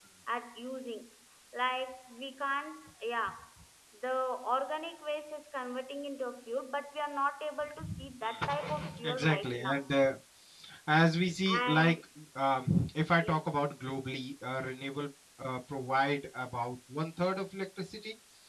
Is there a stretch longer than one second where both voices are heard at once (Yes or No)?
Yes